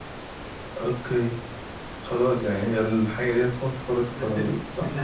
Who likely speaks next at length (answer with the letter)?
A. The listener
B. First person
A